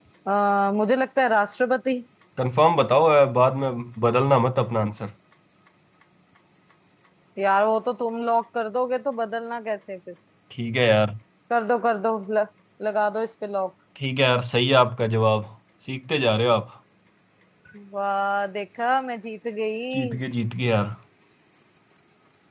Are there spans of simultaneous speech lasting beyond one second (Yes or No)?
No